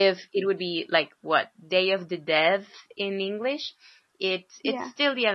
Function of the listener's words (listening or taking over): listening